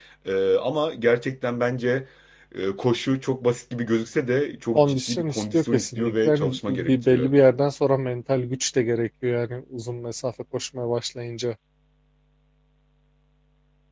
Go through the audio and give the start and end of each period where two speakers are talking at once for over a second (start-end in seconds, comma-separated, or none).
4.8-7.3